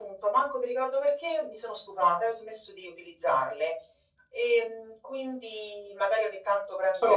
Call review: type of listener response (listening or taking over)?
listening